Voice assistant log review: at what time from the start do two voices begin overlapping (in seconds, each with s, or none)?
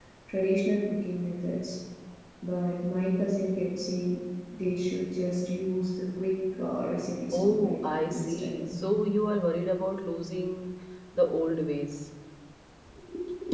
7.3 s